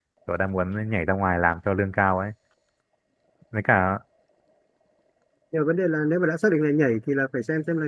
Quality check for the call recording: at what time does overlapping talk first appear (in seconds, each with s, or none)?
none